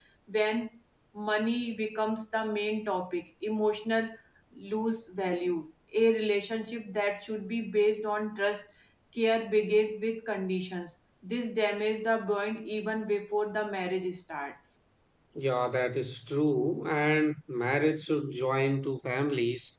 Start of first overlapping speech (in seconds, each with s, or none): none